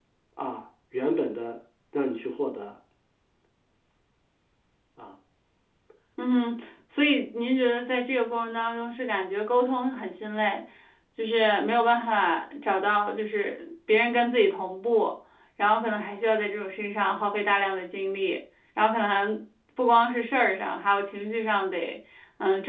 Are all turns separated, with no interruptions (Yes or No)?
Yes